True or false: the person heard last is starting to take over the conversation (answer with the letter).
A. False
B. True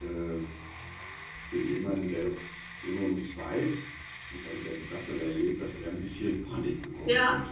B